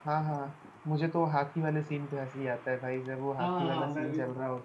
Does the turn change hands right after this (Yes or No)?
Yes